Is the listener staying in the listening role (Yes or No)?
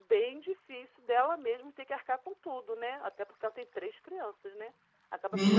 No